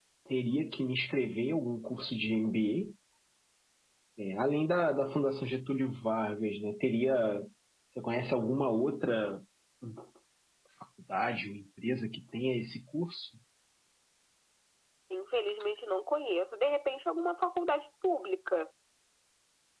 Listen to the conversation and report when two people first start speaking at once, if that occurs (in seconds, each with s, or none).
none